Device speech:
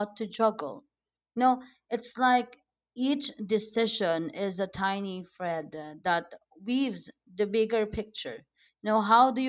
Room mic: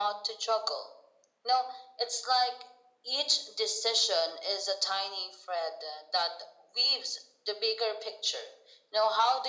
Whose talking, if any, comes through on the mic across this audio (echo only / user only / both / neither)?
echo only